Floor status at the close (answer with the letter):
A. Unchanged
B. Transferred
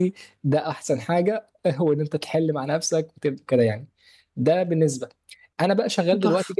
A